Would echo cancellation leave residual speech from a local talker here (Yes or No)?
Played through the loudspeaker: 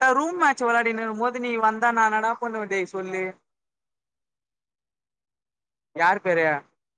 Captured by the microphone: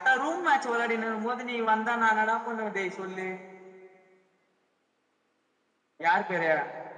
No